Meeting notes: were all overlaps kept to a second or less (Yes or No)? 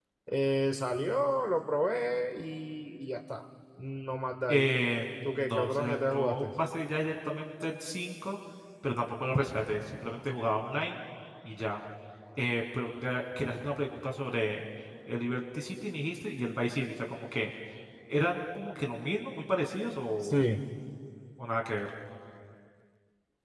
No